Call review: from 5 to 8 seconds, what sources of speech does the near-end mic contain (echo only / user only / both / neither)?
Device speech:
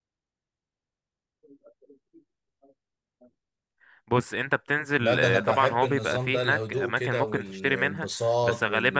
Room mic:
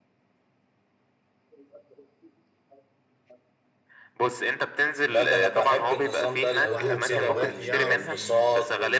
both